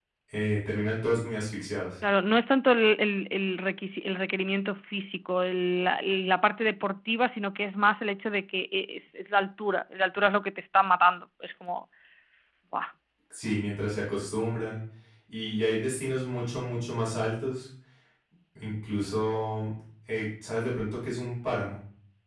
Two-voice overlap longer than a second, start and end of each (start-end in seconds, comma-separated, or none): none